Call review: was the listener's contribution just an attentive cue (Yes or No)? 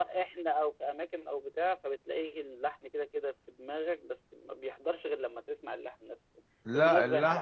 Yes